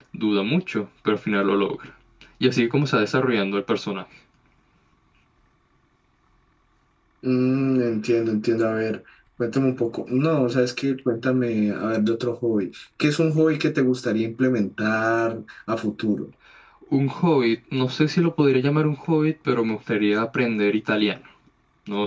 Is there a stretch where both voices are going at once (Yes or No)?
No